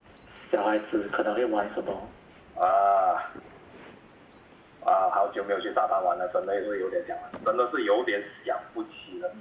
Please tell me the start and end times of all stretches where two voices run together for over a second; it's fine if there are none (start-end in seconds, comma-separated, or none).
none